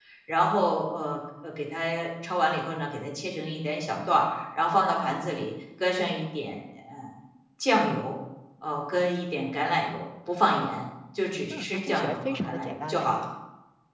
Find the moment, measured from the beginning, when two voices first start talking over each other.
11.5 s

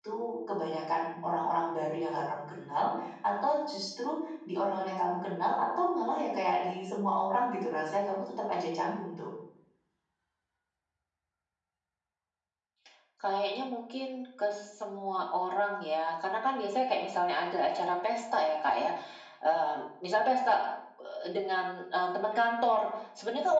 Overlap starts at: none

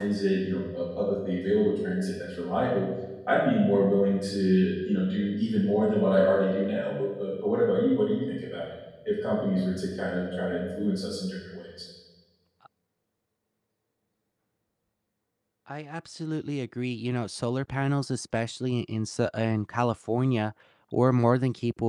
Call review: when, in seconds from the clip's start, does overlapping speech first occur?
none

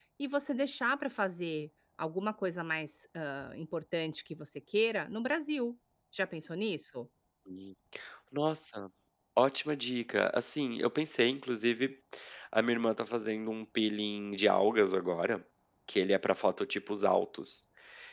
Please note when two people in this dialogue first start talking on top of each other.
none

